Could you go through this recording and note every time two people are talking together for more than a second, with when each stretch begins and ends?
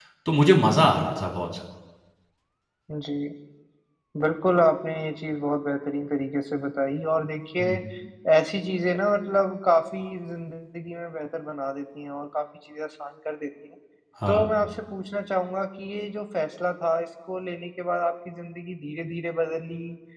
none

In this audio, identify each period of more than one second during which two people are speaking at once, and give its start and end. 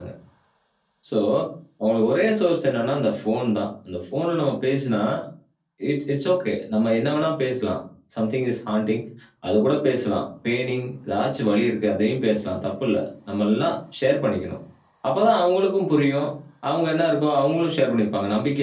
none

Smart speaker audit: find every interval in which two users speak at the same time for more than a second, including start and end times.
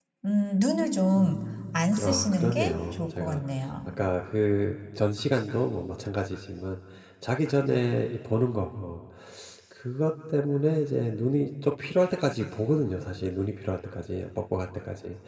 1.7-3.4

